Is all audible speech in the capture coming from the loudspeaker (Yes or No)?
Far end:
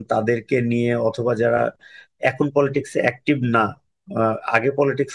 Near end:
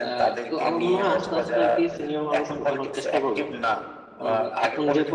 No